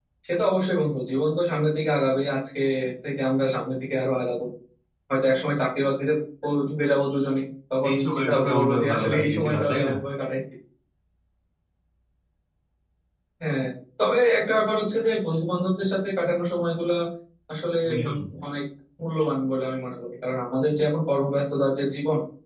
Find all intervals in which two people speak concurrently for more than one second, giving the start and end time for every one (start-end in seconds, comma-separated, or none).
7.9-9.9